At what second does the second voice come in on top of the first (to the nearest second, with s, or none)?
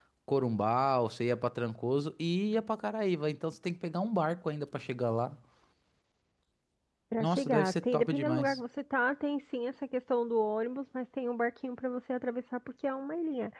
7 s